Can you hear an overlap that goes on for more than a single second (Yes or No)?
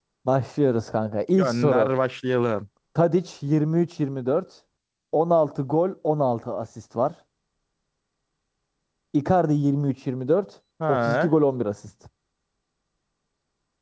No